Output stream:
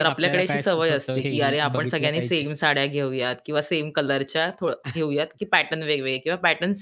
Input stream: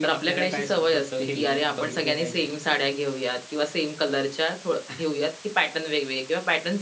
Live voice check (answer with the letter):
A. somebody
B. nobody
B